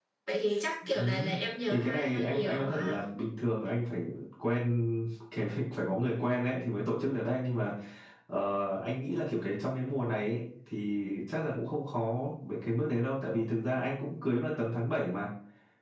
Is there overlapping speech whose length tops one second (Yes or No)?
Yes